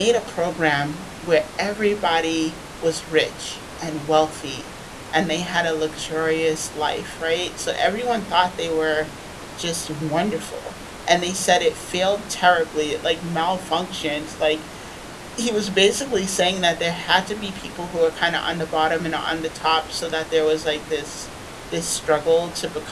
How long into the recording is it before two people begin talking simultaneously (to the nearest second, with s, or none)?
none